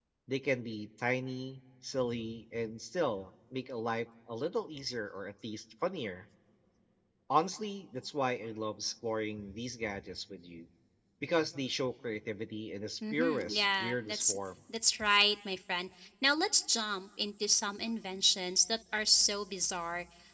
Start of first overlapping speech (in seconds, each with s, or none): 13.0 s